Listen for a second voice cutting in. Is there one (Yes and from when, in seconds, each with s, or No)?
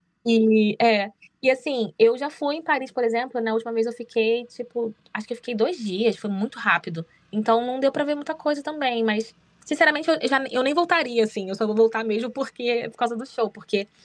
No